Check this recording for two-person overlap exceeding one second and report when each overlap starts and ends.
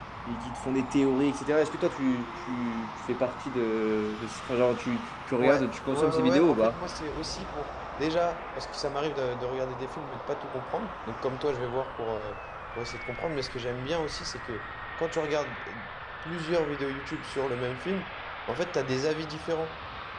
5.4-6.8

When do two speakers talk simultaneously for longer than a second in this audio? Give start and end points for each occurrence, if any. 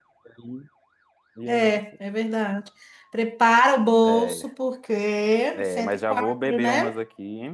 5.5-7.0

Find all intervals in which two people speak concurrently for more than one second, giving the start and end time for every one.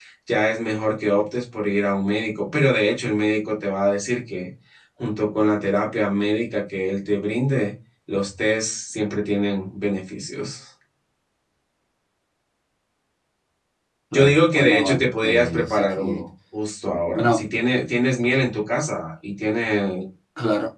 14.1-16.2

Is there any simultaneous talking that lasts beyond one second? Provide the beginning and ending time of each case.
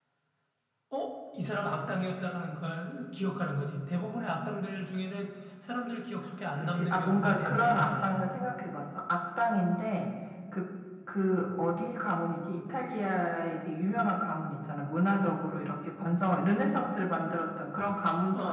6.6-8.2

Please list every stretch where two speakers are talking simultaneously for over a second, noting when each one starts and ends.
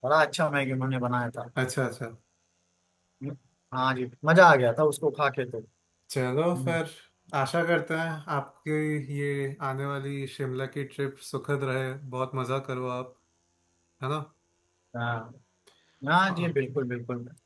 none

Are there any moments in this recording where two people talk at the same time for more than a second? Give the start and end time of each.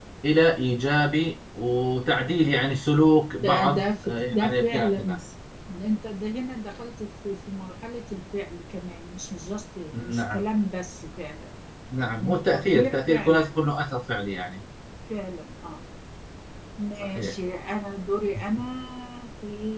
3.4-5.2, 12.2-13.7

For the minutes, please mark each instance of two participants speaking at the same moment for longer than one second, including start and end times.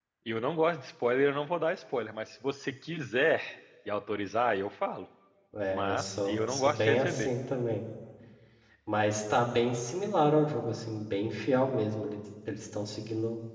5.7-7.3

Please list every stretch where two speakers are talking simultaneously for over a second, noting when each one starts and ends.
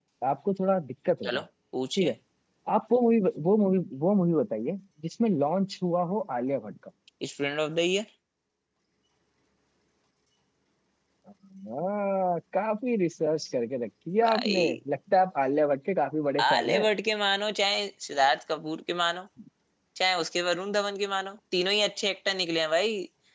none

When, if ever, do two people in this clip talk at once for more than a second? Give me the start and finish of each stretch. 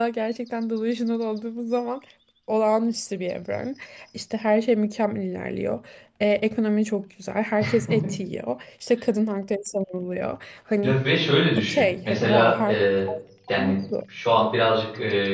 11.6-12.8

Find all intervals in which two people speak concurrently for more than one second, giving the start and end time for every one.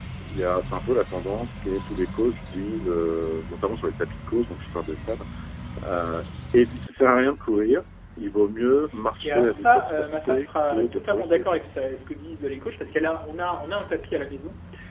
9.2-11.4

